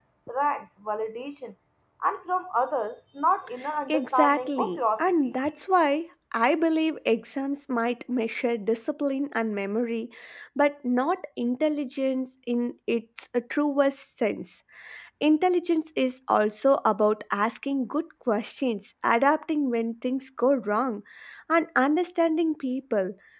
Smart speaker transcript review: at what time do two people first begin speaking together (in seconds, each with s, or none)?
3.9 s